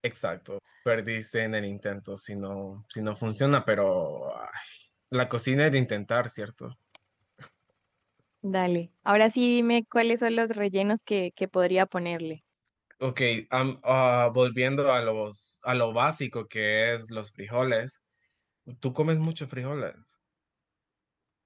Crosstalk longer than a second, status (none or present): none